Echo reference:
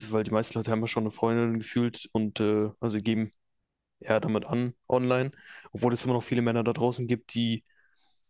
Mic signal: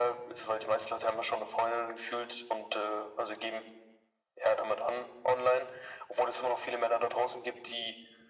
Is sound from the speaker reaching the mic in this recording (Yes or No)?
Yes